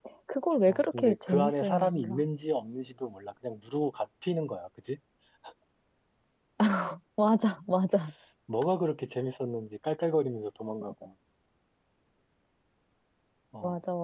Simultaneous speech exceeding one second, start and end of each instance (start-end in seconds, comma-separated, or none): 0.7-2.2